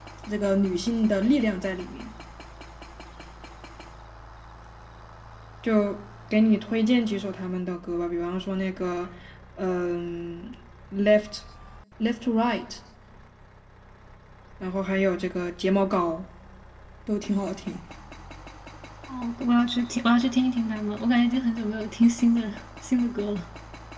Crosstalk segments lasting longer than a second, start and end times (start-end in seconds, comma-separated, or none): none